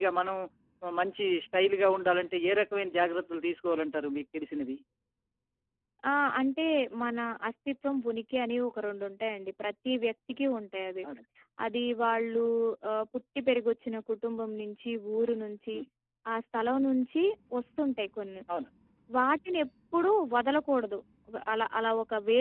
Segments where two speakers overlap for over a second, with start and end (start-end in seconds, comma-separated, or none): none